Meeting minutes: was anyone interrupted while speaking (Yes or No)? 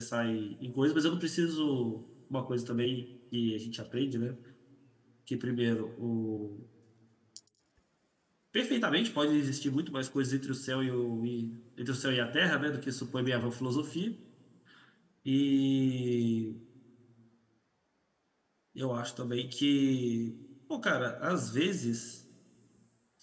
No